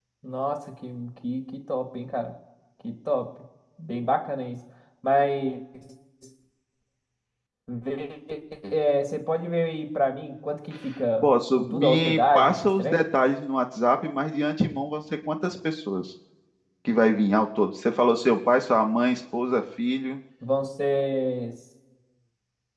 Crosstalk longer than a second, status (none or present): present